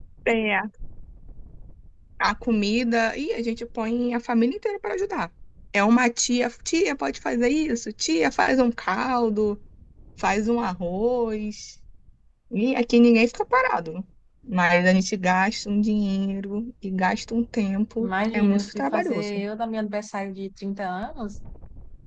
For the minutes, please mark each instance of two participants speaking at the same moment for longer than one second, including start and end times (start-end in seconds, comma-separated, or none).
18.0-19.4